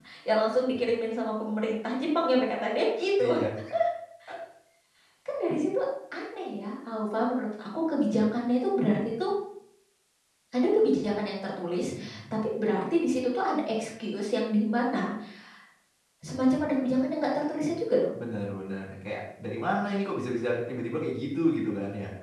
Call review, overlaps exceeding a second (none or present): none